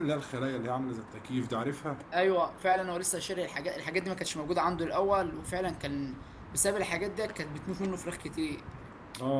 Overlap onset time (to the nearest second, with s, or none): none